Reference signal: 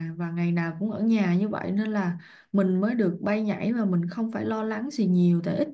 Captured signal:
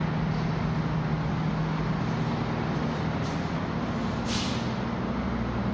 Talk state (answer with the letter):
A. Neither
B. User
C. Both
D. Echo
A